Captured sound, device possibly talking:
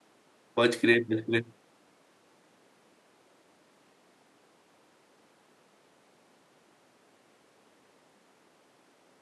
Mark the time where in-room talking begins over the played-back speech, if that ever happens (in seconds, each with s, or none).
0.5 s